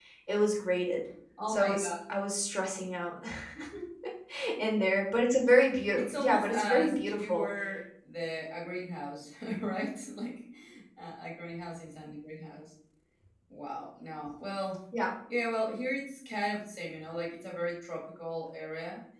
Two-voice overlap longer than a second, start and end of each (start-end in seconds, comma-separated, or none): 6.0-7.5